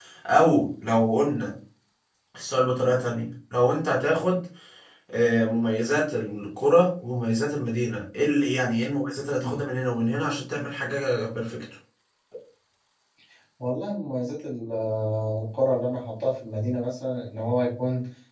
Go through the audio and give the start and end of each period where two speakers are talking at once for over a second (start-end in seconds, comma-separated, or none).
none